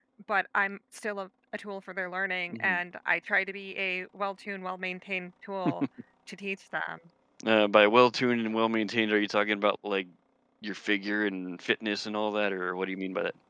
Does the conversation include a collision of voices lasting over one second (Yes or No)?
No